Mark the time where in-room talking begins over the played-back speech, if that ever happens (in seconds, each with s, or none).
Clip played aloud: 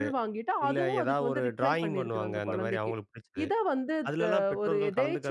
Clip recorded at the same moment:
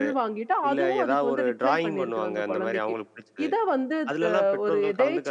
none